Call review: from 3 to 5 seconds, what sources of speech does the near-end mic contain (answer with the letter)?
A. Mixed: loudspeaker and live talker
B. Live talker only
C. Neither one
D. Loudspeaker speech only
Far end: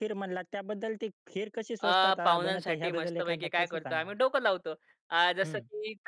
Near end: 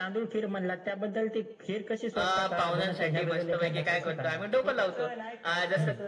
A